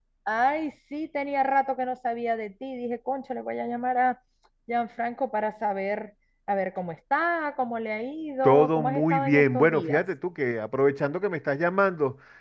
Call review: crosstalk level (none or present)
present